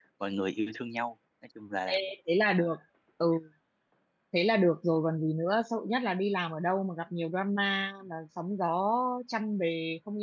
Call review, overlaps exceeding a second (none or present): none